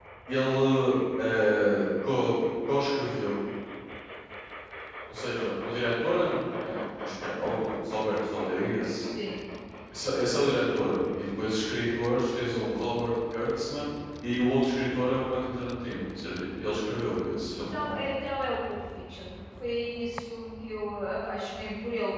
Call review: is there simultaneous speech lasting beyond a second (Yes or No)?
No